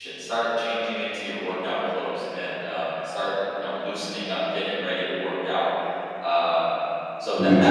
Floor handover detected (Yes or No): No